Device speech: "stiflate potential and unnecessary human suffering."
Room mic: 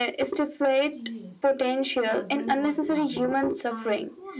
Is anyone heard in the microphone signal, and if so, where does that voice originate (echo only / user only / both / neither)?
both